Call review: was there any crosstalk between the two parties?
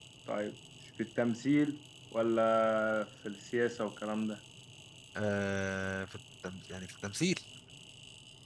No

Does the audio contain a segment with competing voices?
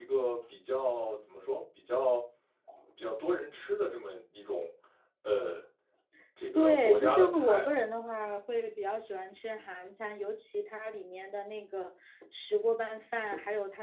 Yes, from 6.6 s

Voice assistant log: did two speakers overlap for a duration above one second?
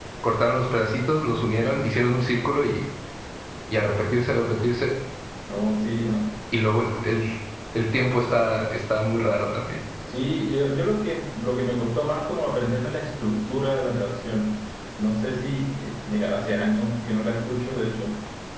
No

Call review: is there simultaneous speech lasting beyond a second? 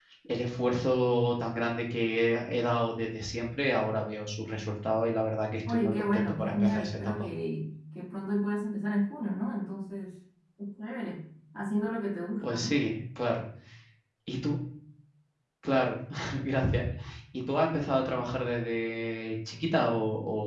Yes, from 5.7 s

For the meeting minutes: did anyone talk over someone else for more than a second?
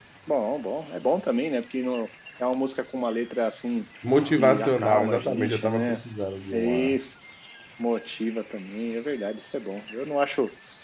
Yes, from 4.4 s

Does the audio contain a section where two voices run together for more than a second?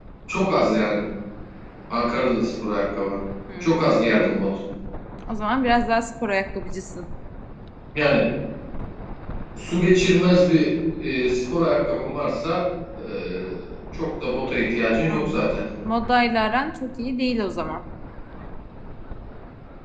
No

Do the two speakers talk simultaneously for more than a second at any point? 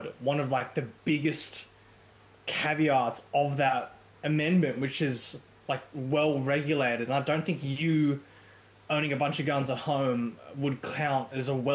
No

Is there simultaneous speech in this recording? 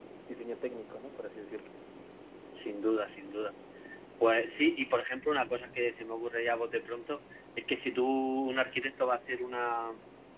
No

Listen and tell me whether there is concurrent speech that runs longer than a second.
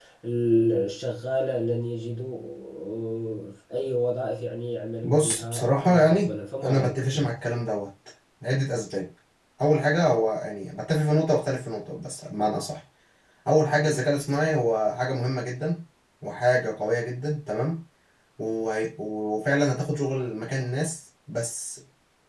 Yes, from 5.0 s

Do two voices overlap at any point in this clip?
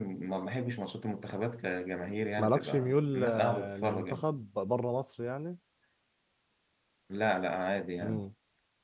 Yes, from 2.4 s

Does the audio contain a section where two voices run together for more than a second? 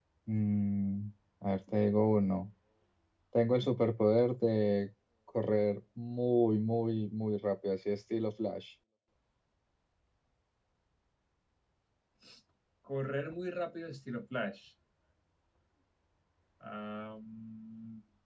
No

